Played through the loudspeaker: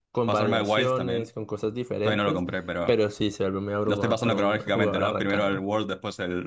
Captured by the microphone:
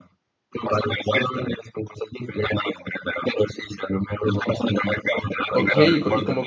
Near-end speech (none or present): present